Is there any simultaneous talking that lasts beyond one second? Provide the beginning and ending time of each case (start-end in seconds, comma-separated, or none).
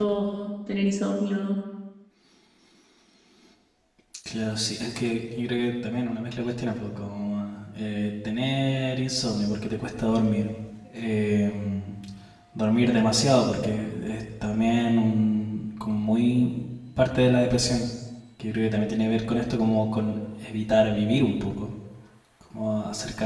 none